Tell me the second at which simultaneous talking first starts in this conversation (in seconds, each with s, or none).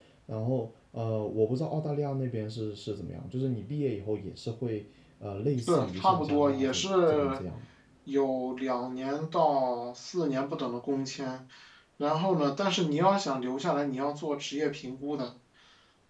5.7 s